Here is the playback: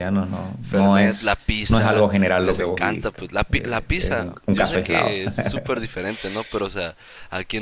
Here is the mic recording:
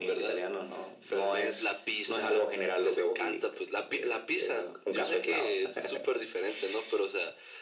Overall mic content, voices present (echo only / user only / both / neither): echo only